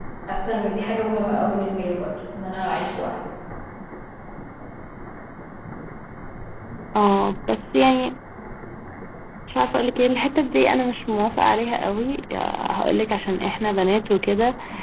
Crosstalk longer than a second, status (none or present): none